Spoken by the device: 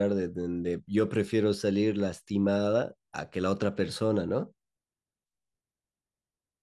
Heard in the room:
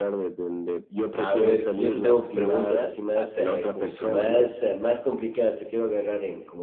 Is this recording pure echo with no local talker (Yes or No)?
No